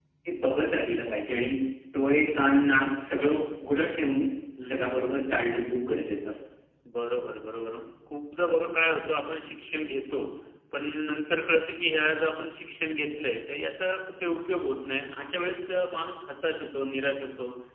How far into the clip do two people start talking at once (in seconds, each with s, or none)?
none